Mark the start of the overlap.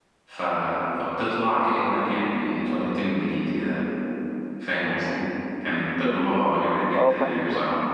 6 s

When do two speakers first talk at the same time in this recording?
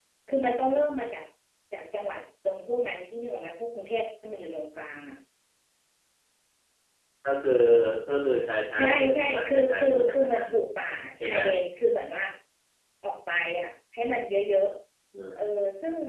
9 s

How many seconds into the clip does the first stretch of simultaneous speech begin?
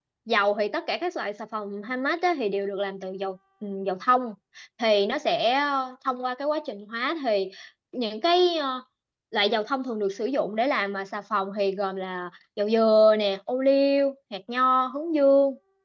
none

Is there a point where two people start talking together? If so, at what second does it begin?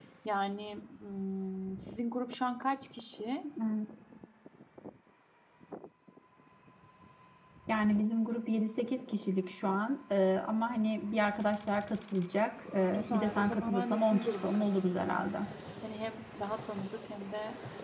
13 s

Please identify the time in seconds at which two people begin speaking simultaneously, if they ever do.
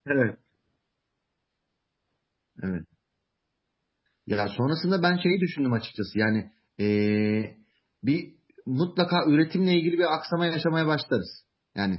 none

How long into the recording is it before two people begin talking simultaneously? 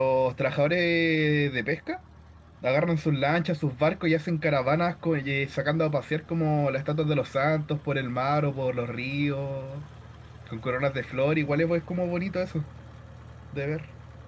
none

